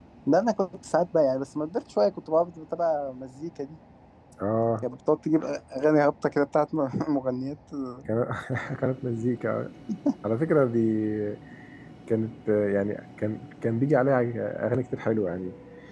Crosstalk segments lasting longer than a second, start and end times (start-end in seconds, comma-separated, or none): none